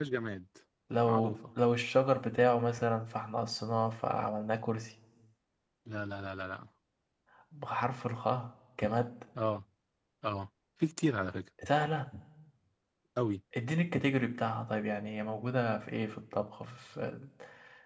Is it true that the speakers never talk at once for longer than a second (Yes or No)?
Yes